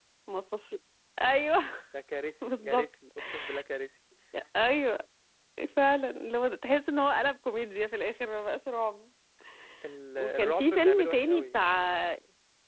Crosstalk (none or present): present